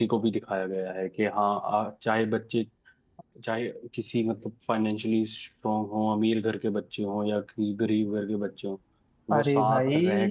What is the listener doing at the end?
listening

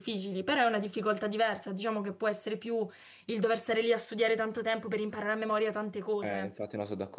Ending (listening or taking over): taking over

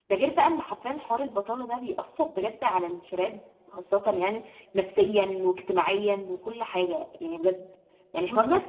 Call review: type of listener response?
listening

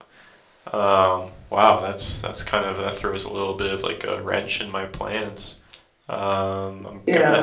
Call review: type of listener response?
listening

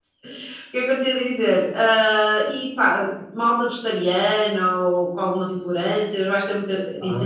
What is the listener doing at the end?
taking over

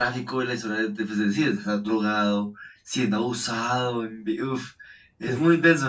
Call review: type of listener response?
taking over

